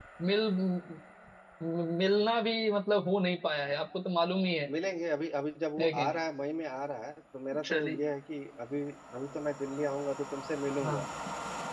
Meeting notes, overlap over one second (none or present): none